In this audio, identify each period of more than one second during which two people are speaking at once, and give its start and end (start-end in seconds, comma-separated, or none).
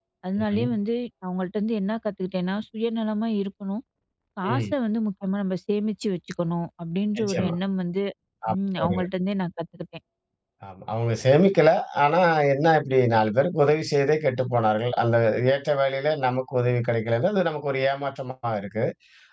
none